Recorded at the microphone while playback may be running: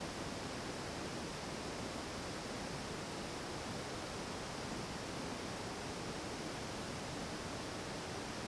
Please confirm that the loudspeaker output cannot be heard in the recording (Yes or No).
Yes